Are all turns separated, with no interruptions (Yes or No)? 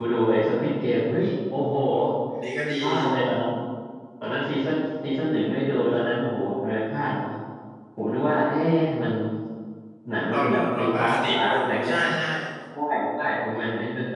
No